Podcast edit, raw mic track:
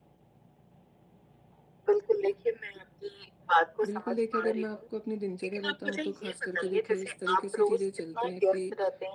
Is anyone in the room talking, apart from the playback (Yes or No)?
Yes